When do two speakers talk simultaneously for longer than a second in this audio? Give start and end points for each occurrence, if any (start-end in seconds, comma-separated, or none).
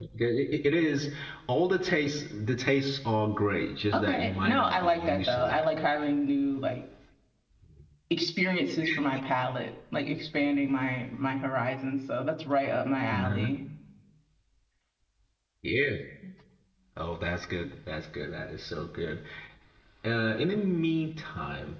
3.9-5.7